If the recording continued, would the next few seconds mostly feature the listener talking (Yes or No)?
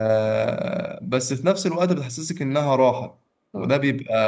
No